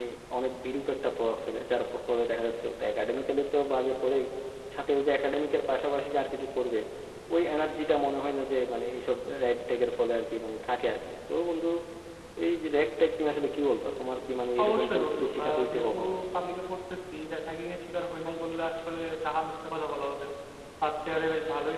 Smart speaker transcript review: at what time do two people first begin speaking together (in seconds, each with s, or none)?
14.6 s